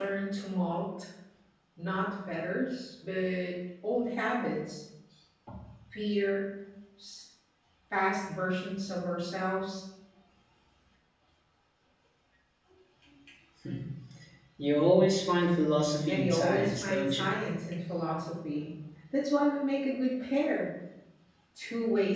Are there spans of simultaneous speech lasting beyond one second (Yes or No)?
Yes